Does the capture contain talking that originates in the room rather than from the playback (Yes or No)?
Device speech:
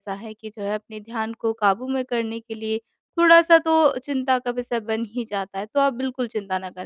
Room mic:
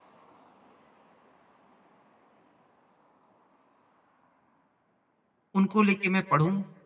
Yes